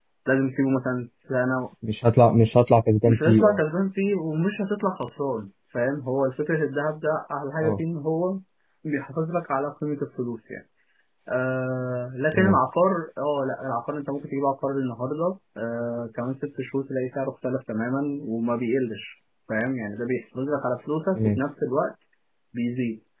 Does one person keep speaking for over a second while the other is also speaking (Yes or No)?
No